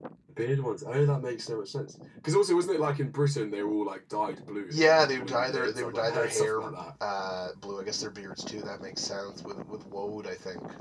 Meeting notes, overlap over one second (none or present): present